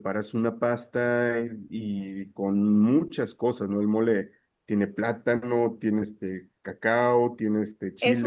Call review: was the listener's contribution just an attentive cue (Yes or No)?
No